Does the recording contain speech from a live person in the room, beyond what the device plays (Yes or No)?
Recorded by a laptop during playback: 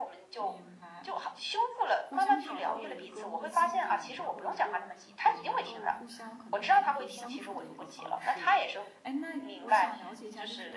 Yes